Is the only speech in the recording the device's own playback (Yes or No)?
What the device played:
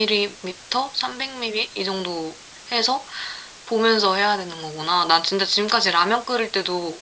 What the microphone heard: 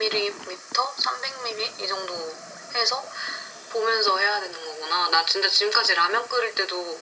Yes